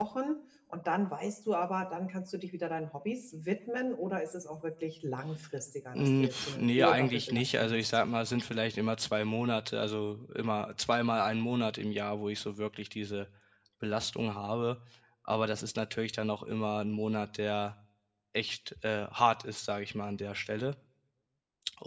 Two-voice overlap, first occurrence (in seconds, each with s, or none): 6.0 s